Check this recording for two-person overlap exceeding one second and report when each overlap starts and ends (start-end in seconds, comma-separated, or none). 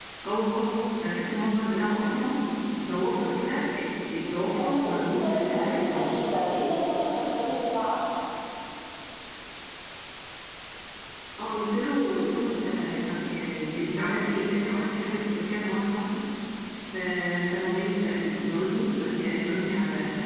4.5-6.0